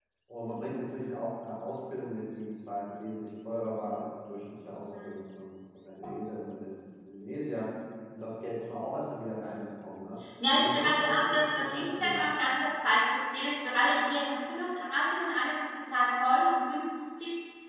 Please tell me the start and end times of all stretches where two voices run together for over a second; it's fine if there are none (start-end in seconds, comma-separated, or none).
10.6-12.2